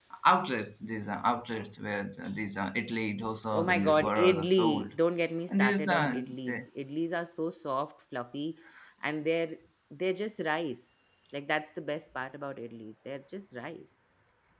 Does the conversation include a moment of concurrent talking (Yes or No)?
Yes